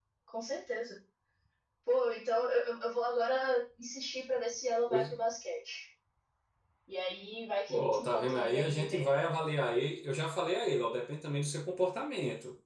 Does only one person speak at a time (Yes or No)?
No